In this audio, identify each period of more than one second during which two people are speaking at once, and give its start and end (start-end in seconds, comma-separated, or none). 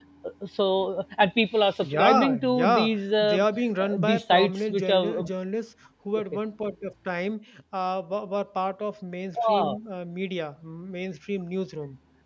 1.8-3.4, 3.8-5.2